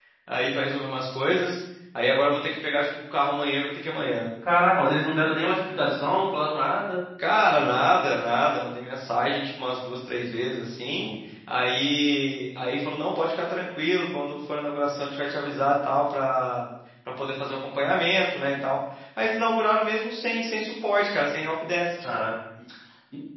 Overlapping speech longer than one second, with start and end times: none

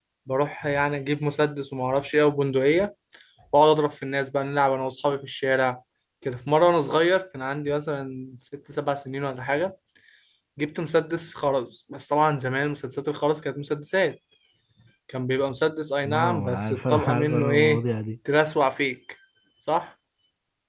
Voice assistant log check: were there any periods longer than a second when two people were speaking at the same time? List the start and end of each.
16.0-17.8

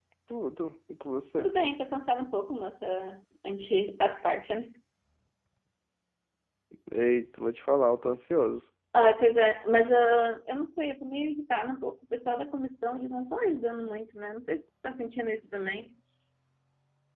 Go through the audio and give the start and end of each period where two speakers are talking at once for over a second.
none

